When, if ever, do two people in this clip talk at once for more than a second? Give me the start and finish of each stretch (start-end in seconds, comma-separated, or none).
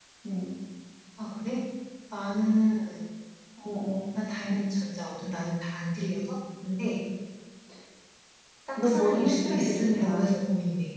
8.8-10.3